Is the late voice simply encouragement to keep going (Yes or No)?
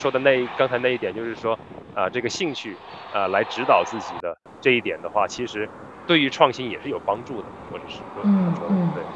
No